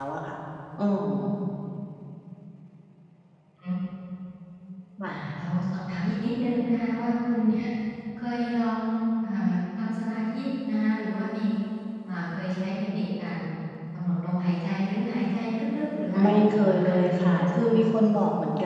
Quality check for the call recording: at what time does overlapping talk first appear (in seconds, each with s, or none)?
16.2 s